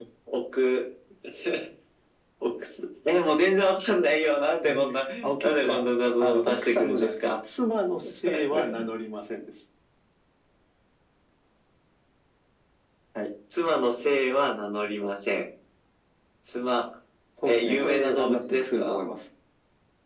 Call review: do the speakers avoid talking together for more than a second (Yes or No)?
No